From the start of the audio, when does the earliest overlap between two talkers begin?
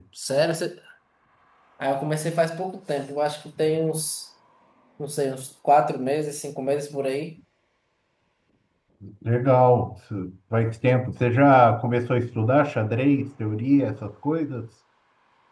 none

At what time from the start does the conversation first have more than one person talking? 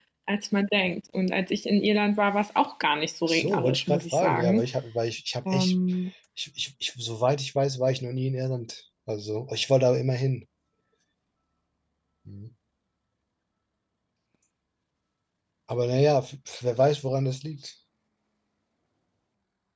3.3 s

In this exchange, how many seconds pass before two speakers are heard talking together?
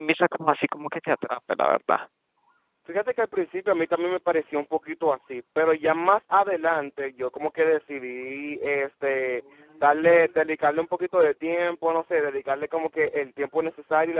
none

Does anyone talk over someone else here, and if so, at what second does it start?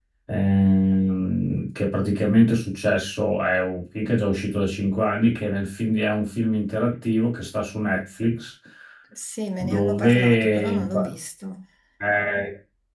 9.6 s

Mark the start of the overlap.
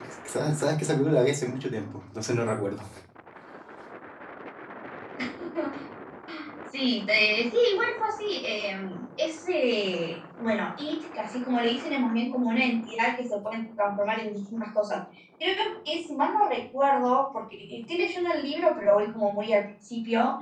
none

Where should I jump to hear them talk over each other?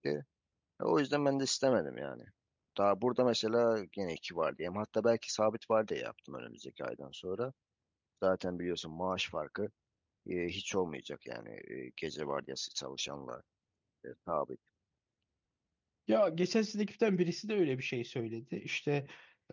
none

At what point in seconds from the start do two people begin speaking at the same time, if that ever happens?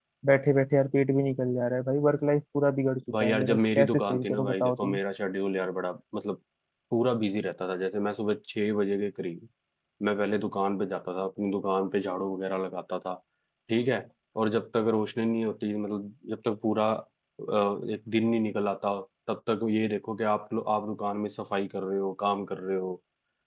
3.1 s

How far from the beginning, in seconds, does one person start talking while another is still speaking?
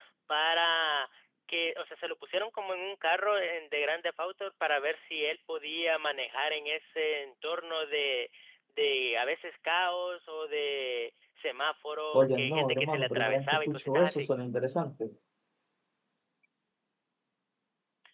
12.1 s

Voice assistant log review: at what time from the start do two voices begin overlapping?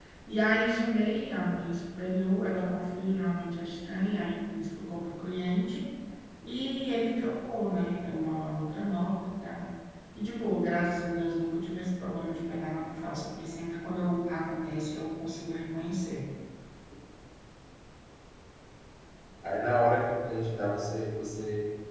none

